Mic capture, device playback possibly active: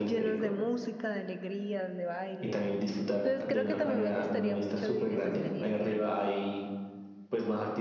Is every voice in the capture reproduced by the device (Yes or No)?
No